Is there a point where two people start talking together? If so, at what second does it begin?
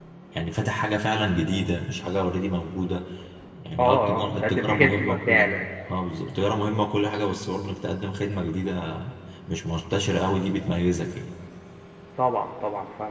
3.8 s

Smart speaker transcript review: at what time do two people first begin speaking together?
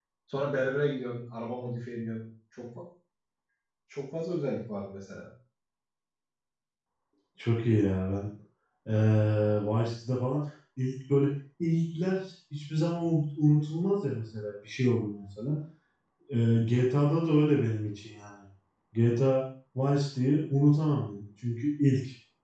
none

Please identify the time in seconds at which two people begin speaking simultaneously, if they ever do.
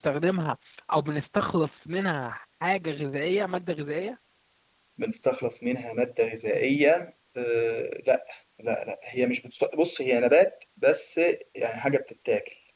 none

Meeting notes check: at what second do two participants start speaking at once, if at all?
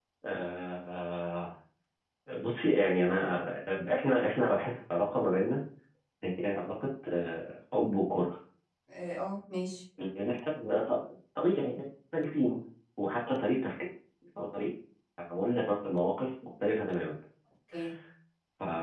none

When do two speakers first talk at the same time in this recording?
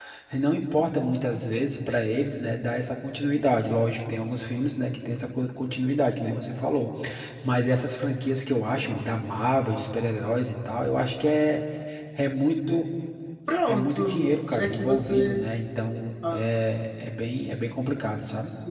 13.7 s

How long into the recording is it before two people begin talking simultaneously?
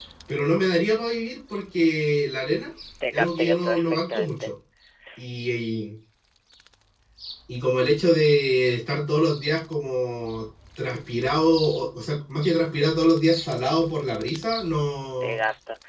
3.1 s

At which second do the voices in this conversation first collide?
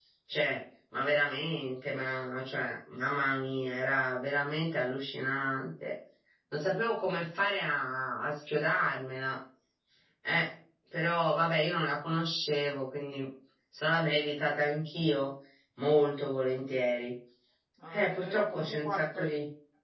17.9 s

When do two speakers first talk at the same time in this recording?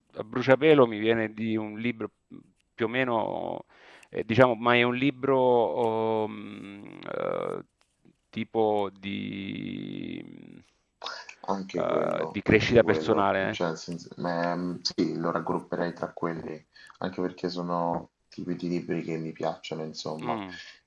11.8 s

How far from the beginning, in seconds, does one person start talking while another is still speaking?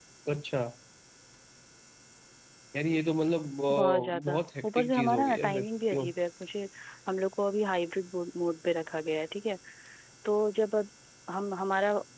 3.7 s

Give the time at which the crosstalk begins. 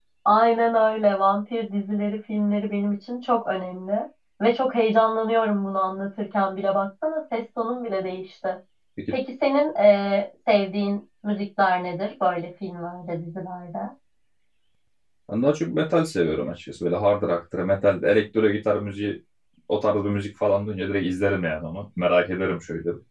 none

